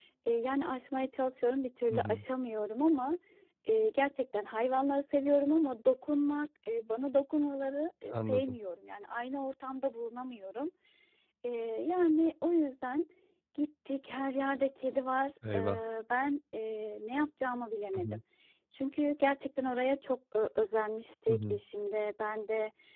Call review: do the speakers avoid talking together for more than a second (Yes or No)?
Yes